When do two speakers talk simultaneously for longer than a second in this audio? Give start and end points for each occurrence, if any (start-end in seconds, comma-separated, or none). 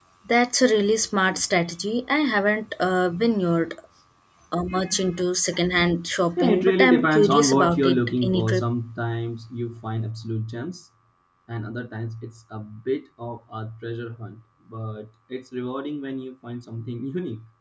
6.4-8.6